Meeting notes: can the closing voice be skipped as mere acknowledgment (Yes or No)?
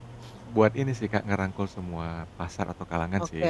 No